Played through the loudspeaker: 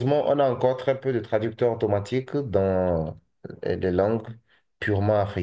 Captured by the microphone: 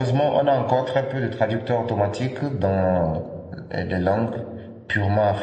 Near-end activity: none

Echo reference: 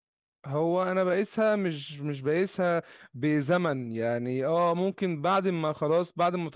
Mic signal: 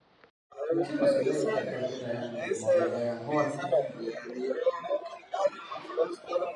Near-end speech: present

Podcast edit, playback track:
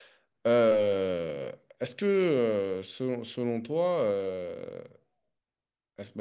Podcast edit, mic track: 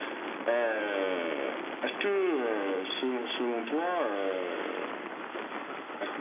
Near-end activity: none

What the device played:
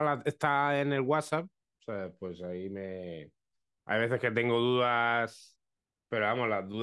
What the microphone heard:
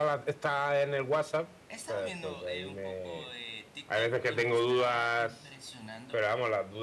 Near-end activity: present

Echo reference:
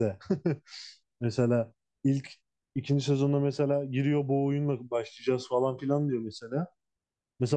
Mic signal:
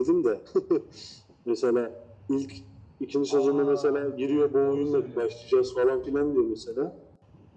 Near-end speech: present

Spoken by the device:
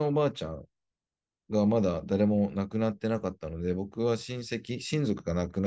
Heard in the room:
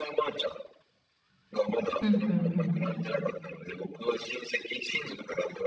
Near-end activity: present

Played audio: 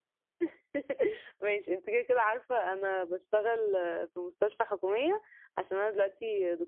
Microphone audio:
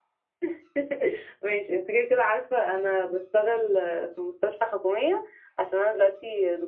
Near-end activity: none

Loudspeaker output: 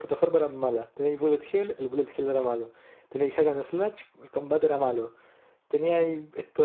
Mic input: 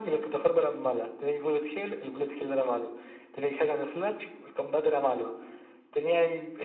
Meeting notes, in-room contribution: none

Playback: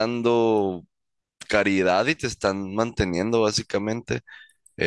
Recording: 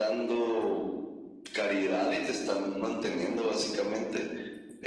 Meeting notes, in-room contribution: none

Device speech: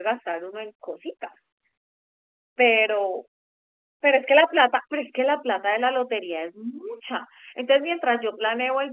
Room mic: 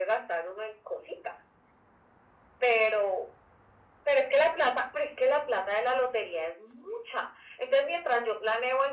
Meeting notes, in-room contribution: none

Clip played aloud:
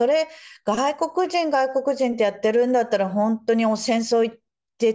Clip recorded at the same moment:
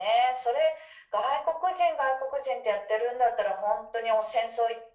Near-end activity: none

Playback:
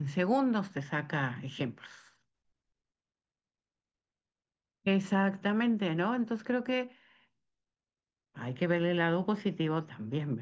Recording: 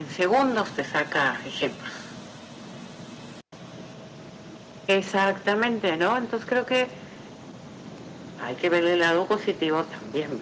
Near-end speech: none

